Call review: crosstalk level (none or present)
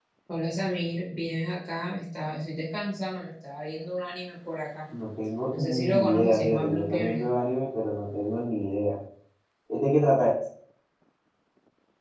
present